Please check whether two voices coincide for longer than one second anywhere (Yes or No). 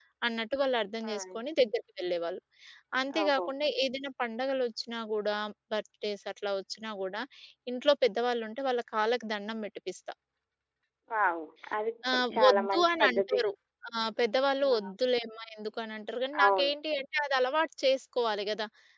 Yes